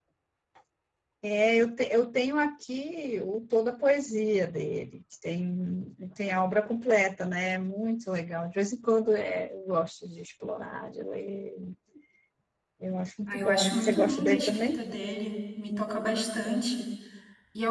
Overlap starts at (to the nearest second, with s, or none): 13 s